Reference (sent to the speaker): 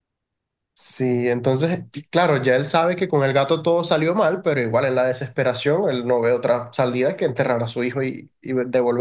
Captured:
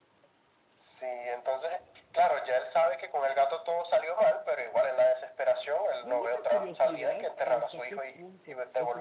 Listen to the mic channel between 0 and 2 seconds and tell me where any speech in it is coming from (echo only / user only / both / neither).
echo only